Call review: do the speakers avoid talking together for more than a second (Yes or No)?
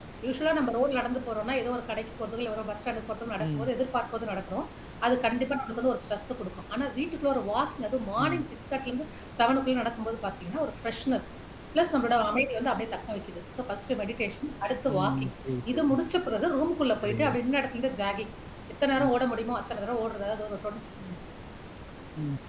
Yes